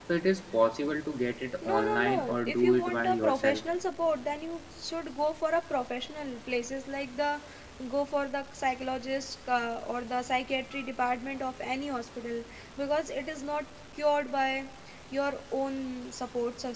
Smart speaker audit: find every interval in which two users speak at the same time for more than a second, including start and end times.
1.6-3.6

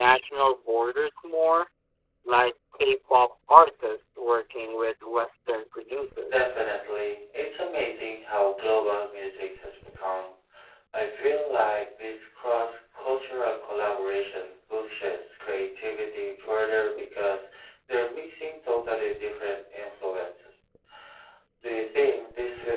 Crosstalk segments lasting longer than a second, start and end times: none

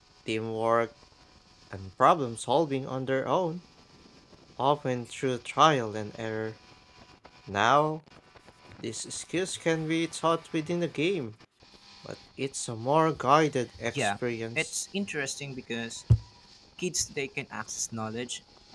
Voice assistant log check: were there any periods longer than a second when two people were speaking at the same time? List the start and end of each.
none

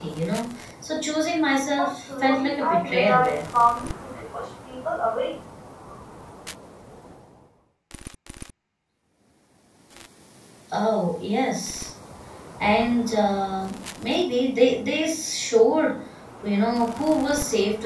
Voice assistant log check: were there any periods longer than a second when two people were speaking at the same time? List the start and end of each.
1.8-3.4

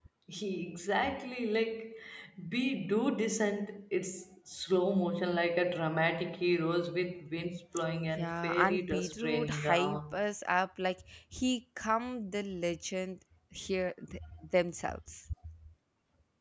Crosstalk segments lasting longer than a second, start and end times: 8.1-10.2

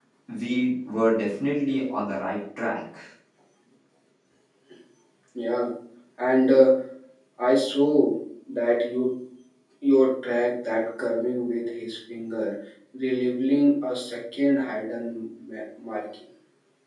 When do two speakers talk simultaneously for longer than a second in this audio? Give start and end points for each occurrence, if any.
none

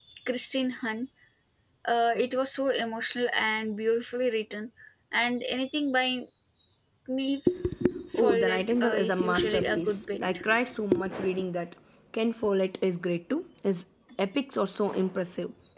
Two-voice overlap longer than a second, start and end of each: 8.2-10.4

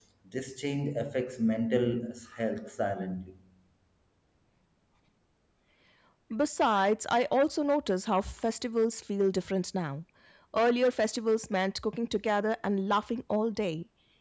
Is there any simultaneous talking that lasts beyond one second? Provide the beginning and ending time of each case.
none

